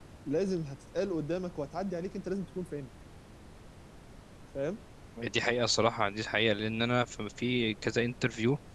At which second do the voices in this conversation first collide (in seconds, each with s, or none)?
none